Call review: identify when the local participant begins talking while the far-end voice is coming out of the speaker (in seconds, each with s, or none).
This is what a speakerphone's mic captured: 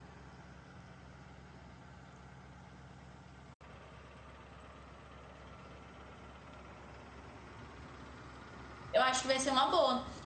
8.9 s